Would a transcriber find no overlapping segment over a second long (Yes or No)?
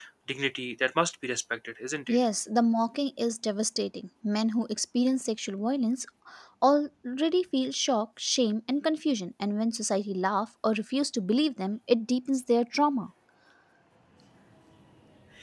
Yes